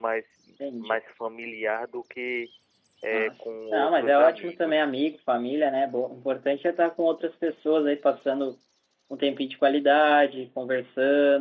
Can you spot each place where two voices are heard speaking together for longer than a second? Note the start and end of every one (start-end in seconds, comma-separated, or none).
3.1-4.8